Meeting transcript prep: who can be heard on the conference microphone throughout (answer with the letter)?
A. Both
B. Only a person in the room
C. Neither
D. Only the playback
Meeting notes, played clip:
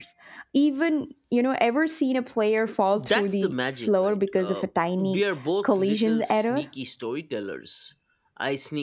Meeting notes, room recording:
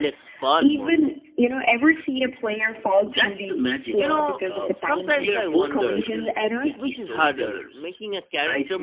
A